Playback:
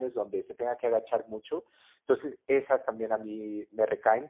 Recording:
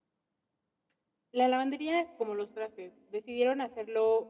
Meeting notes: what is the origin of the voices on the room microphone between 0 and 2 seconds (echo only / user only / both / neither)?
user only